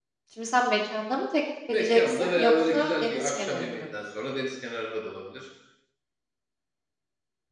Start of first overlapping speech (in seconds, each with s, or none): 1.7 s